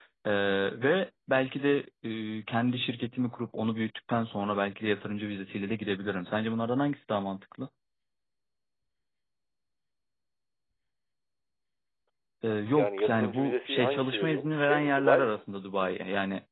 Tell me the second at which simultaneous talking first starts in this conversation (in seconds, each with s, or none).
12.7 s